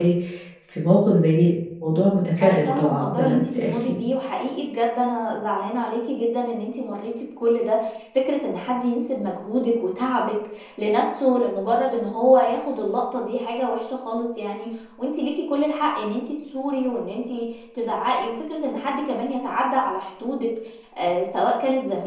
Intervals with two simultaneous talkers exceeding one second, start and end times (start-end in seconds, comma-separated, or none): 2.4-4.0